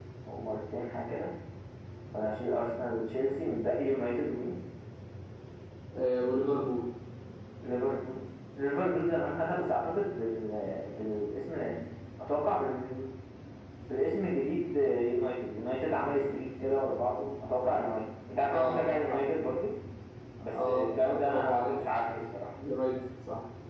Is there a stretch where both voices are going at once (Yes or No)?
Yes